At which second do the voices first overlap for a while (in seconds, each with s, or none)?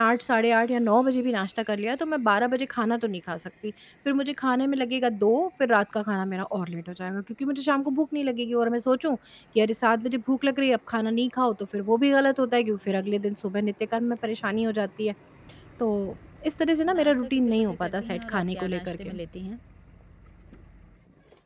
16.9 s